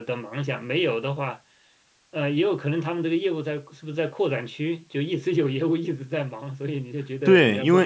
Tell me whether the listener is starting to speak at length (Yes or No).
Yes